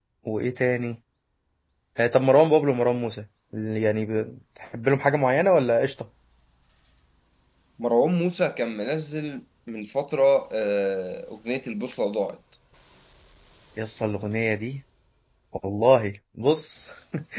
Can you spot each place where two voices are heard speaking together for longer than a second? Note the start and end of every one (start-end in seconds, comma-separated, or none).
none